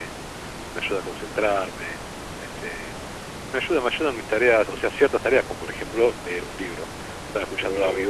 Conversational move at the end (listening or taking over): taking over